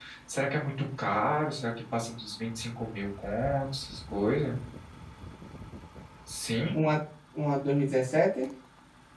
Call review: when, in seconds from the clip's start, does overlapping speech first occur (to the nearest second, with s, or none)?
none